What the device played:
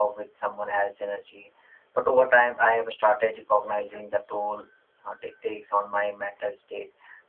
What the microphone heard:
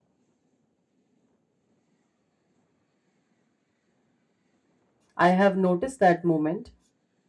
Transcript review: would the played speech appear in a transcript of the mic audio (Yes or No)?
No